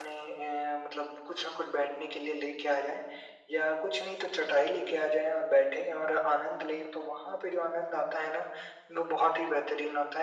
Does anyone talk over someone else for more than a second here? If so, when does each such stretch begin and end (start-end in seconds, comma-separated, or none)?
none